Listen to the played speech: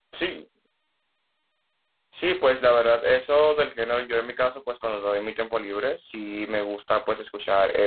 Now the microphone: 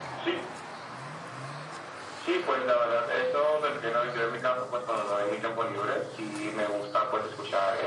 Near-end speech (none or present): none